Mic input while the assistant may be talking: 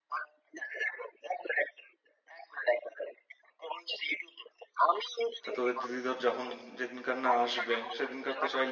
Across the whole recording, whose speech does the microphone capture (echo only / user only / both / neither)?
both